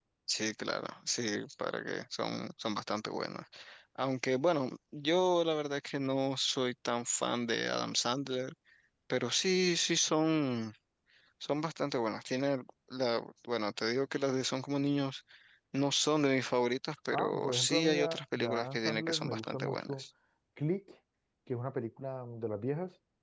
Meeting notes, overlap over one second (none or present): present